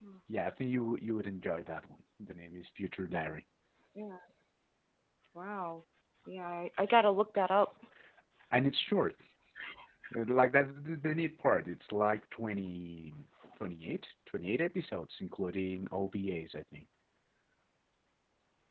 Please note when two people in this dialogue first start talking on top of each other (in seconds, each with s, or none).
none